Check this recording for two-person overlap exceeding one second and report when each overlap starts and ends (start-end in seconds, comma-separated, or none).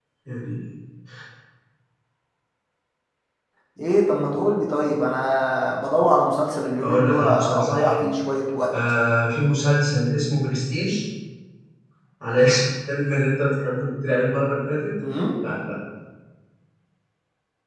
6.8-8.0